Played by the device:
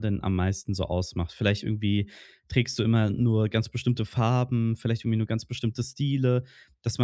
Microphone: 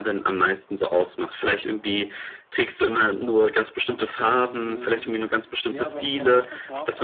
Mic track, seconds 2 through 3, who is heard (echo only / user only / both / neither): echo only